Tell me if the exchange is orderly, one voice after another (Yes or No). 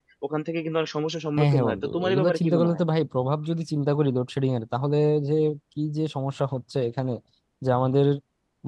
No